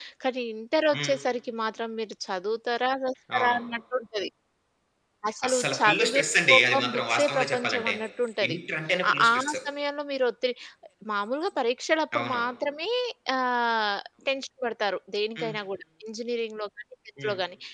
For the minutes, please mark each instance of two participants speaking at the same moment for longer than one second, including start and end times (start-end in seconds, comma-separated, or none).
5.5-7.9